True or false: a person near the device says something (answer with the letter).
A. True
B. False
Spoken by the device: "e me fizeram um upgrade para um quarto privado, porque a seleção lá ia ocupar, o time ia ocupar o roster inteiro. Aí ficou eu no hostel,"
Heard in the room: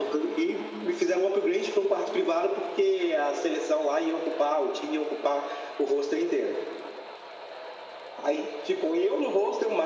B